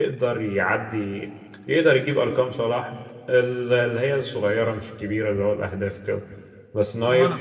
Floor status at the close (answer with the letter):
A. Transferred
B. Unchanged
B